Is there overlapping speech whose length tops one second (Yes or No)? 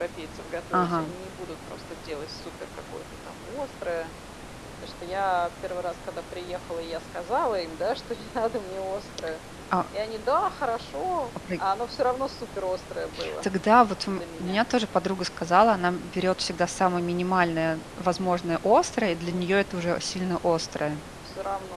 No